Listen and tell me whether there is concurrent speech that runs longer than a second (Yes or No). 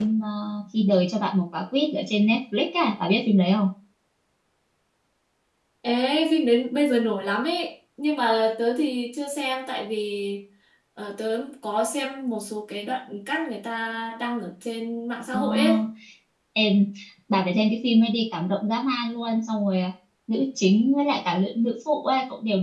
No